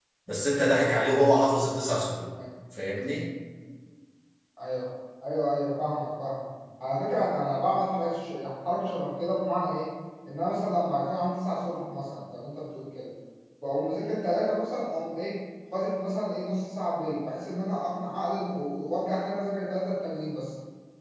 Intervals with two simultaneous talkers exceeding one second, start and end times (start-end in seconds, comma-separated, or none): none